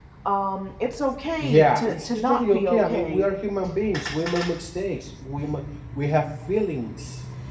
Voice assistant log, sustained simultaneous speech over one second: present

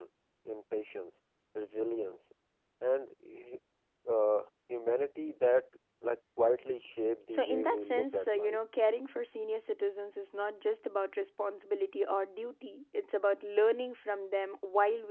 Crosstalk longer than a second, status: present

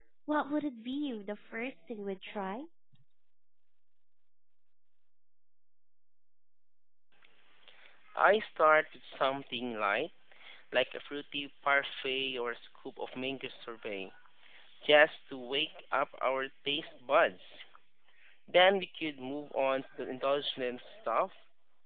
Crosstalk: none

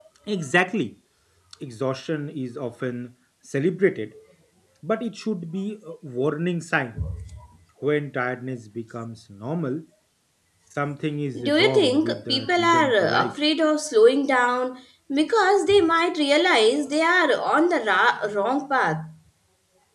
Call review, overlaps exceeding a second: present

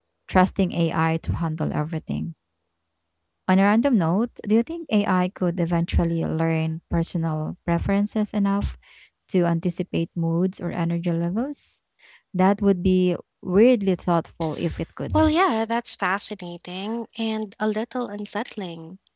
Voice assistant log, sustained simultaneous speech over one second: none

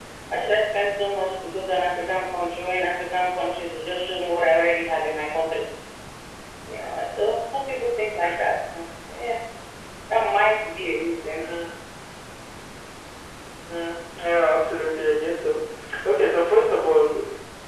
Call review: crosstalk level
none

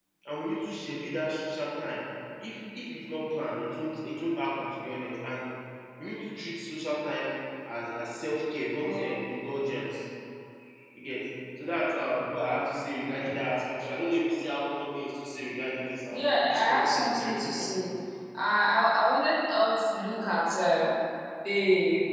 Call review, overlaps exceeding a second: present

